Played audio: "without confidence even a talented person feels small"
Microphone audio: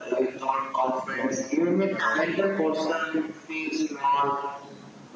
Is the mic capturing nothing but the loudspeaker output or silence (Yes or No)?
No